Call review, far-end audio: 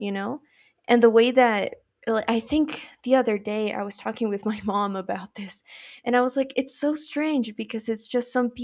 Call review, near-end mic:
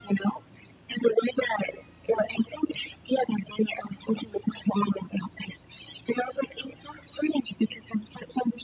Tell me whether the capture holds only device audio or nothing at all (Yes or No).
Yes